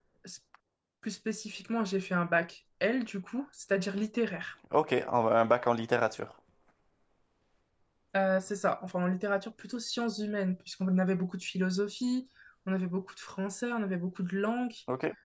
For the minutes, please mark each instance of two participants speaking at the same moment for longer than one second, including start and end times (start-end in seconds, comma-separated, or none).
none